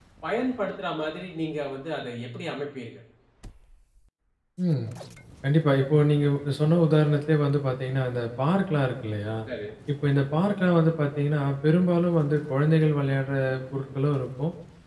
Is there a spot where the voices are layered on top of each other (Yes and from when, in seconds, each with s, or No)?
No